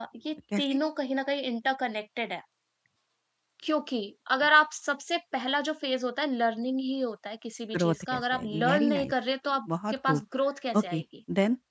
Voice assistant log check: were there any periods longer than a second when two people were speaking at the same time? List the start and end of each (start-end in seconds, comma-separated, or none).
7.8-9.1